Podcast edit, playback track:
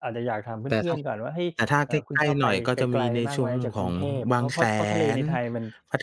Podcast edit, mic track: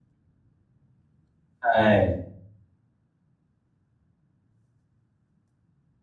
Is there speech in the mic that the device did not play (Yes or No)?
Yes